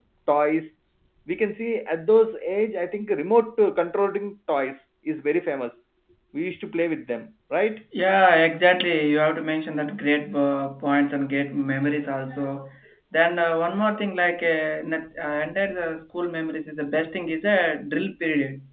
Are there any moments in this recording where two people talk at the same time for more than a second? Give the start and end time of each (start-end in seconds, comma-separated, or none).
none